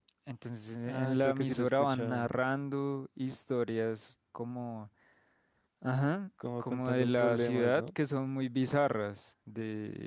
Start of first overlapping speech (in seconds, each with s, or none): 0.9 s